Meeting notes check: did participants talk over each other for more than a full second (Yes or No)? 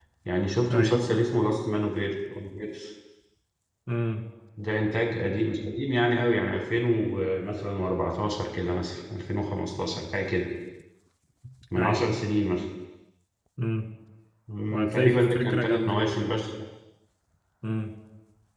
Yes